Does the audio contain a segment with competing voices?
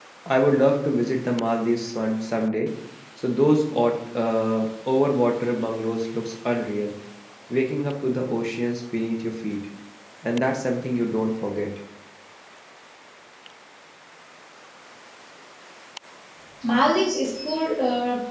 No

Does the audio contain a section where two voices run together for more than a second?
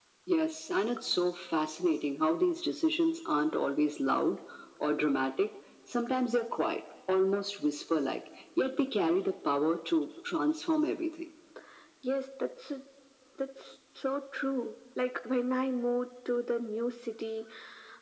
No

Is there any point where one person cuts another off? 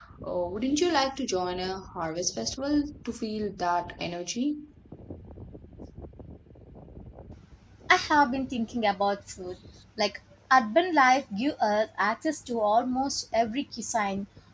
No

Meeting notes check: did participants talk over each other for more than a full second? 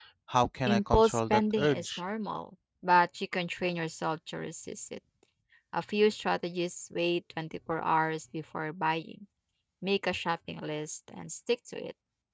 Yes, from 0.7 s

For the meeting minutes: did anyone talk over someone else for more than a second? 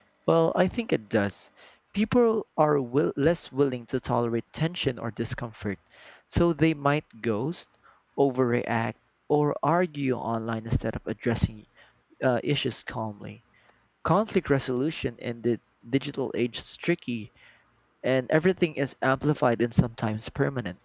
No

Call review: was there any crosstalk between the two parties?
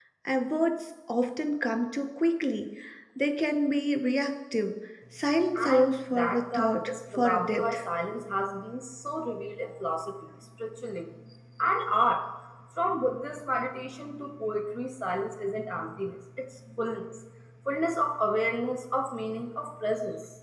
Yes, from 5.5 s

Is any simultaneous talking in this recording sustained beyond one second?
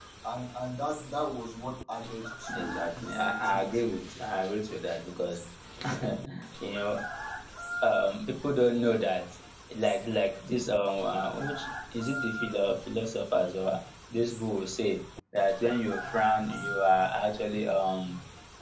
Yes, from 2.5 s

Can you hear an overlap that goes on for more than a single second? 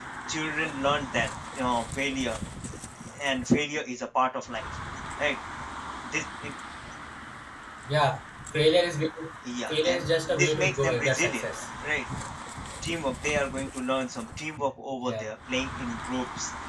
Yes, from 9.7 s

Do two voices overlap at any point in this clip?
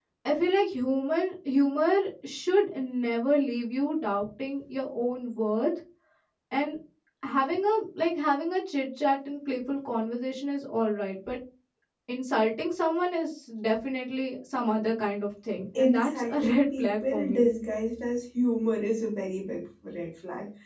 Yes, from 15.8 s

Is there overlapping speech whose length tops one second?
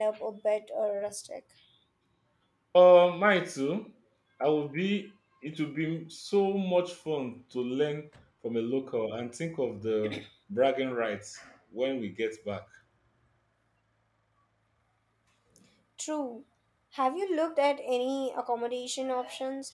No

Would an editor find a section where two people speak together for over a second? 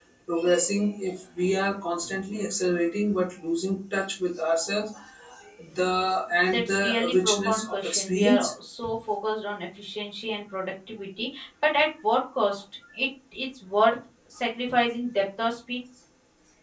Yes, from 6.5 s

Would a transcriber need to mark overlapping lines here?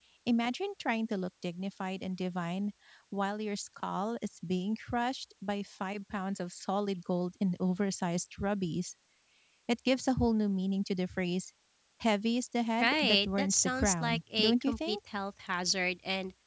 Yes, from 12.8 s

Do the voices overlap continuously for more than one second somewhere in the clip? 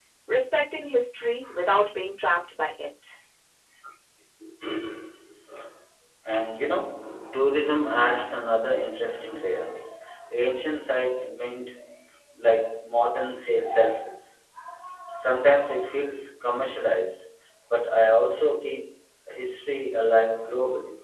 No

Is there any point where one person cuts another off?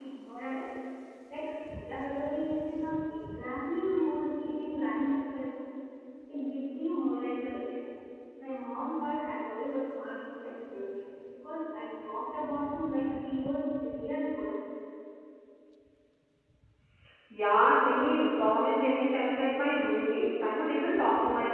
No

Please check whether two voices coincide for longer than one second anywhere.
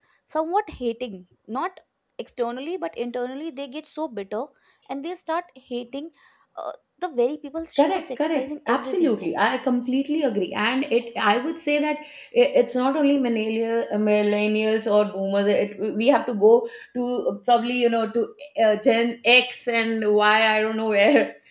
Yes, from 7.8 s

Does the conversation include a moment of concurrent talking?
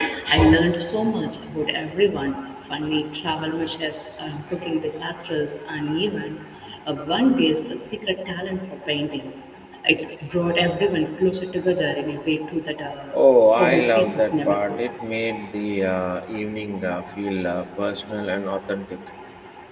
Yes, from 13.6 s

